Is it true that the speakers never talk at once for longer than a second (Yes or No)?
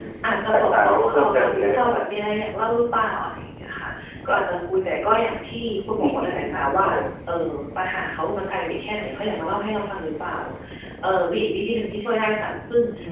No